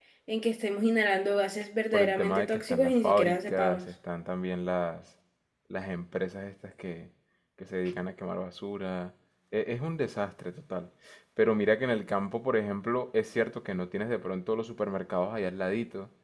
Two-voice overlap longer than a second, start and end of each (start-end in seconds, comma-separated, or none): 1.9-3.8